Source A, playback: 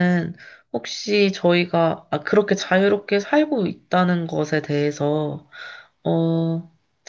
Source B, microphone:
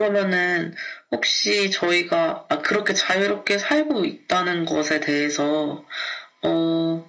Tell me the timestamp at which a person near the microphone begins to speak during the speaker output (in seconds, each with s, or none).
none